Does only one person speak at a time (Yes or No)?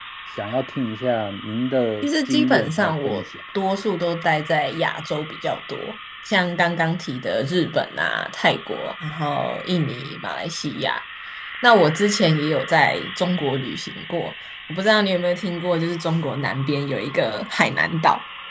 No